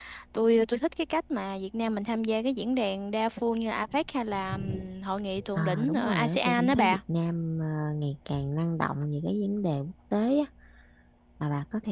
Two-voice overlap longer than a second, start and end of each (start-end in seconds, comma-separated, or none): 5.5-7.0